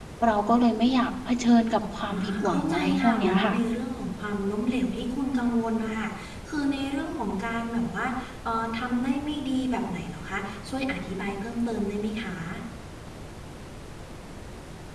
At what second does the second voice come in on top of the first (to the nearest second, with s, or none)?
2 s